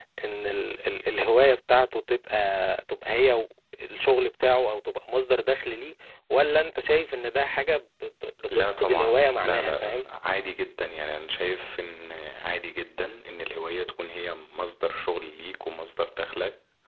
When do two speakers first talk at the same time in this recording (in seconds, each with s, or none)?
8.5 s